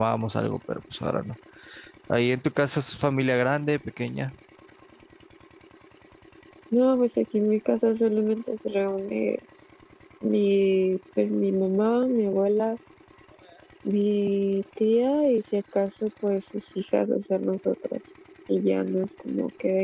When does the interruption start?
none

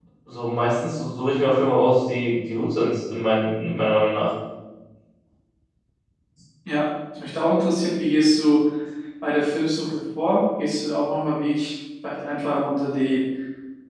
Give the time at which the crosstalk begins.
none

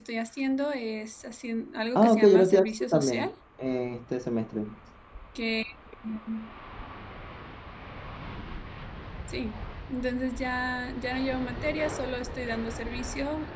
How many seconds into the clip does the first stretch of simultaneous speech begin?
2 s

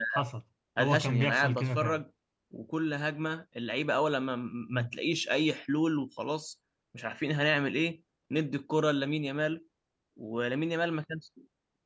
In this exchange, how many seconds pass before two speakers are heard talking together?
1 s

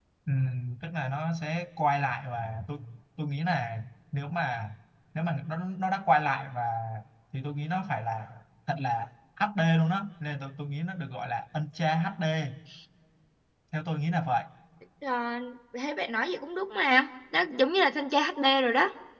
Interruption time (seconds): none

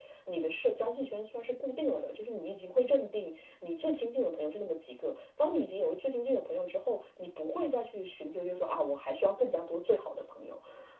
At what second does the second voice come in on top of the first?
none

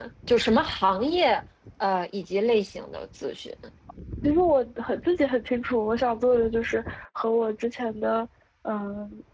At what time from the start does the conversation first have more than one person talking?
none

